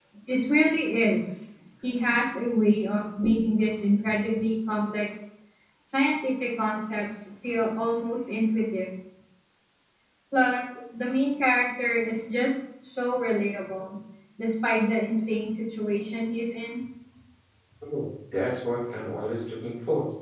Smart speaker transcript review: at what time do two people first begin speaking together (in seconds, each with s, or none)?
none